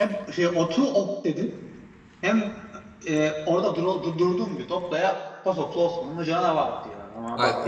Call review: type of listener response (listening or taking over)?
taking over